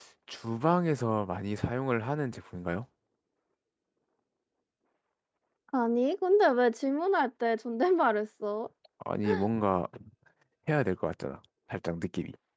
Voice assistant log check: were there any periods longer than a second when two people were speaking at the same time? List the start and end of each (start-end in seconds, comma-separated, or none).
none